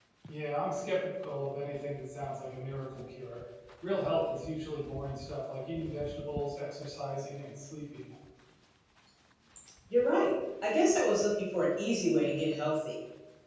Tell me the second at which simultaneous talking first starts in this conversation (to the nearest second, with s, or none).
none